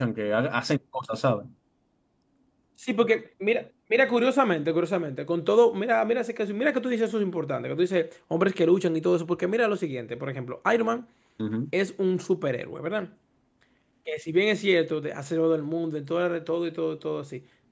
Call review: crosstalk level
none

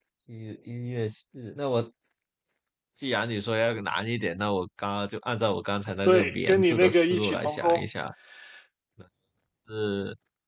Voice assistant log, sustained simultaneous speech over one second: present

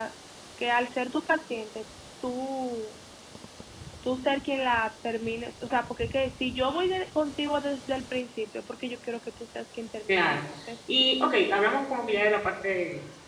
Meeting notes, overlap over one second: none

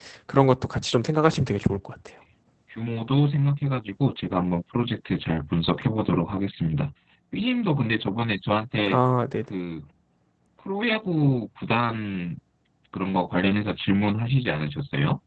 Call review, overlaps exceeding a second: none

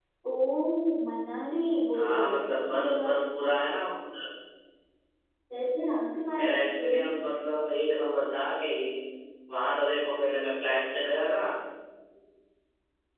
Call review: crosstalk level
present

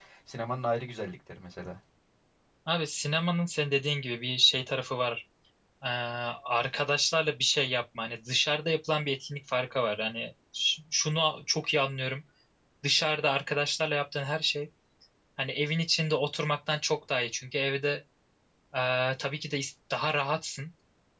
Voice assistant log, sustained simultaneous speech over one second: none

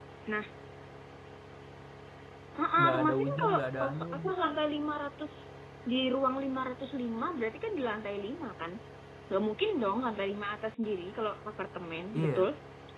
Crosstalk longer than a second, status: present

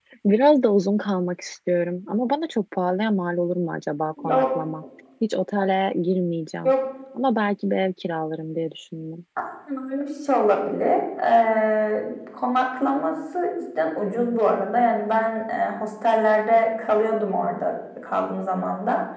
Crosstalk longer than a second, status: none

